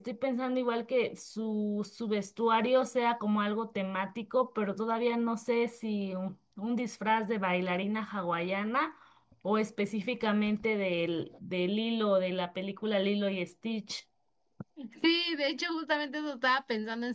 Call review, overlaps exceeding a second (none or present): none